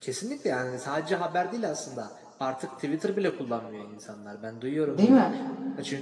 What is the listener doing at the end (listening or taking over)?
listening